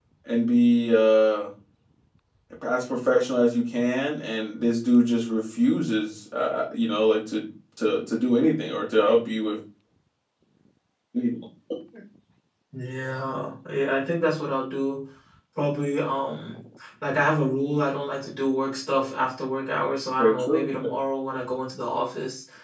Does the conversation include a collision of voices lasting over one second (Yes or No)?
No